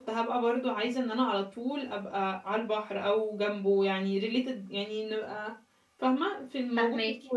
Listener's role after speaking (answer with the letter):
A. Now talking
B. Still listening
A